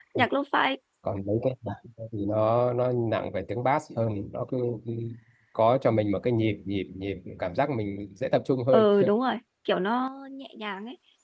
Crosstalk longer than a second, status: none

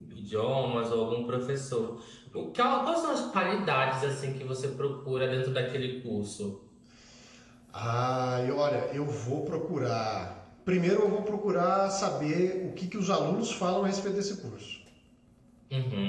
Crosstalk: none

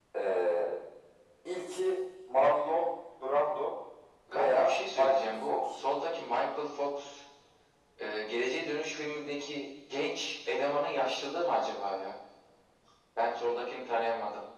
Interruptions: present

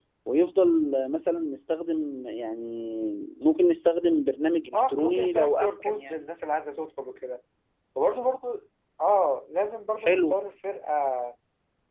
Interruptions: present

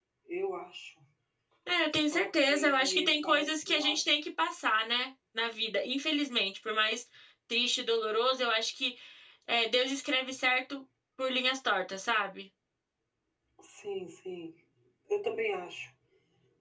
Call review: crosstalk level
present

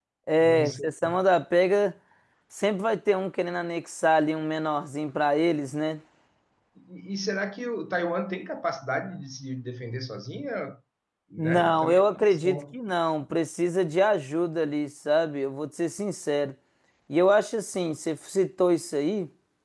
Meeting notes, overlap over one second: present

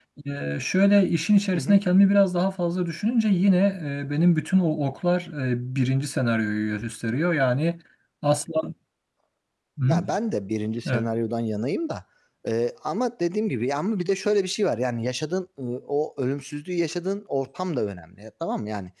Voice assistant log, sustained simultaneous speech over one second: none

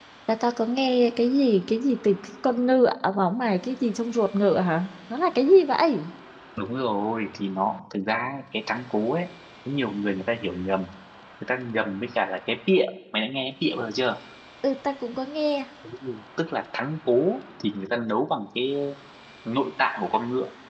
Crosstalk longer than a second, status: none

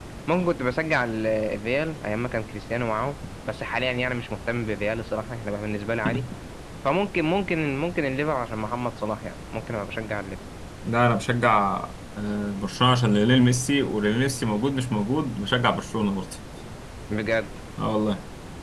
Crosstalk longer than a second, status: none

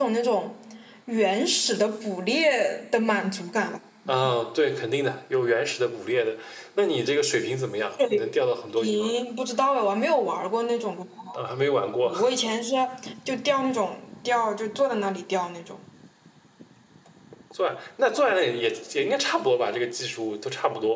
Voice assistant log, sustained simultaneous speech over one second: none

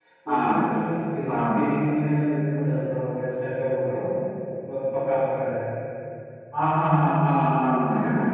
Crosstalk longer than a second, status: none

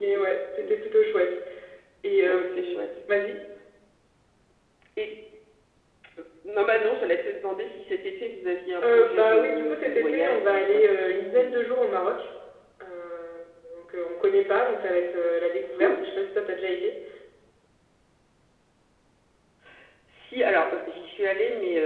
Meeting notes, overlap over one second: present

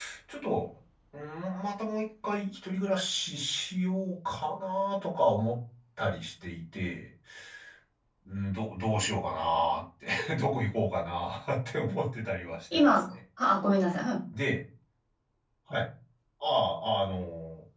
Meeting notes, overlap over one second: none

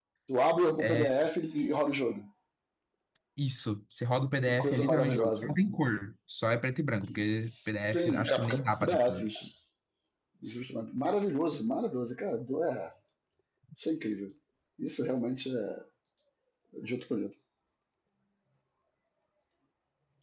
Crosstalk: present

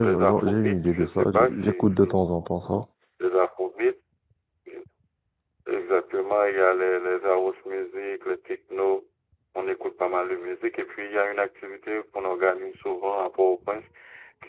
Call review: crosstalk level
present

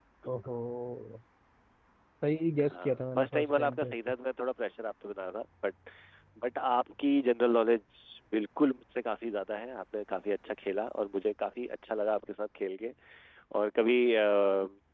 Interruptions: present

